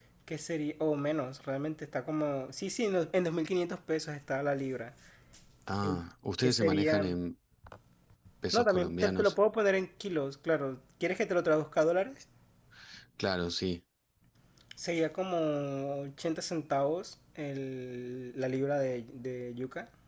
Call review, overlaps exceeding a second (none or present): present